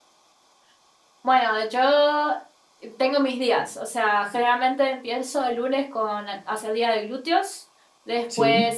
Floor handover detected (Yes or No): No